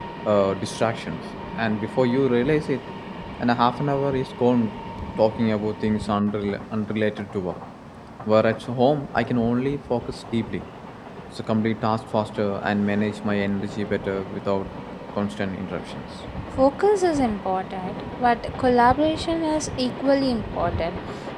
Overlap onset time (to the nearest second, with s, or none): none